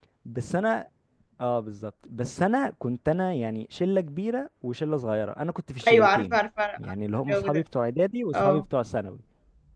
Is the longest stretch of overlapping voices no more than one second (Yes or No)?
Yes